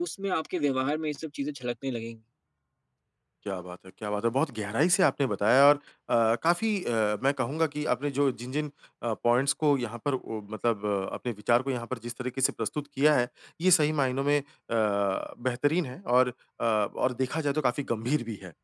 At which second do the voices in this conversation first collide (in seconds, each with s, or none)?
none